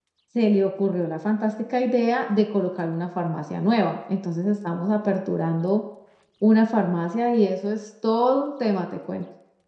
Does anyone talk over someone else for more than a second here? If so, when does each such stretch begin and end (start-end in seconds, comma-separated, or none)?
none